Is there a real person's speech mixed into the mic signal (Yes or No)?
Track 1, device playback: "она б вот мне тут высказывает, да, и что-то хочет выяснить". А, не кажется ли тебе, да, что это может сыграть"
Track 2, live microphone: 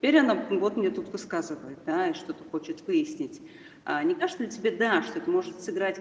No